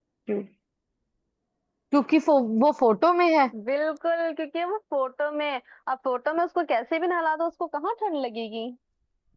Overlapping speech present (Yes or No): No